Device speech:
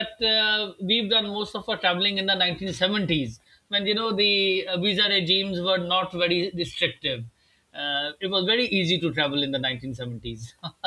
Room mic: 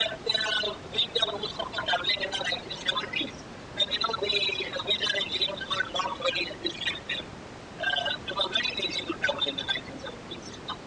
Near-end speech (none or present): none